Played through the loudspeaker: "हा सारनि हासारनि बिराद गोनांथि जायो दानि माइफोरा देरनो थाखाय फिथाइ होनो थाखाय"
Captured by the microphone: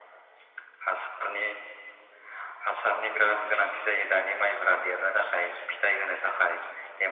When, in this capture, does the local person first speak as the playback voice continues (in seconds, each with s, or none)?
none